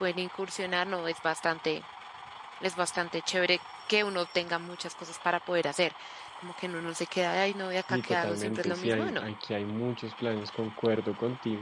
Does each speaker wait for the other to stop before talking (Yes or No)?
No